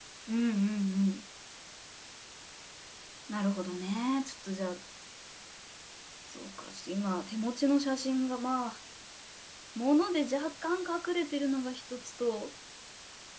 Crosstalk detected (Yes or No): No